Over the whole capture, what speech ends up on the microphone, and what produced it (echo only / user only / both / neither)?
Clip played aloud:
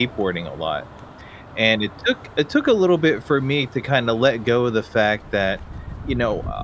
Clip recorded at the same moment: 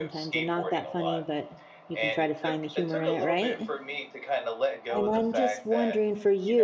both